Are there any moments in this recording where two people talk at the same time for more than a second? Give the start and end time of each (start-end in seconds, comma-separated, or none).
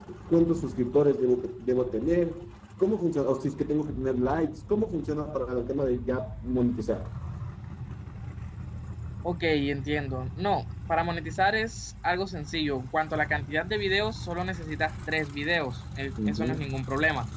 none